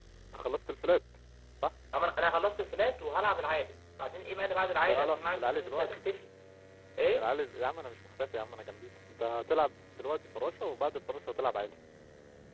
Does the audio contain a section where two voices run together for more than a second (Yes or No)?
Yes